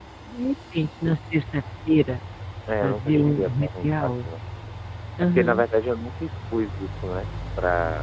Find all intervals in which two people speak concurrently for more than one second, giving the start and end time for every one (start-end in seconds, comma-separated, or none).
2.8-4.3